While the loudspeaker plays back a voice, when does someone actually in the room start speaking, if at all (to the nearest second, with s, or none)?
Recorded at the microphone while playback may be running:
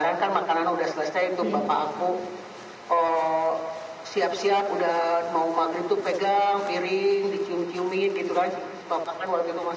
1 s